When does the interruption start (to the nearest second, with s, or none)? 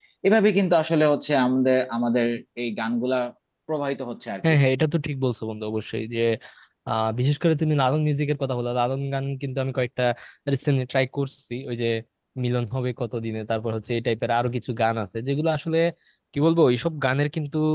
none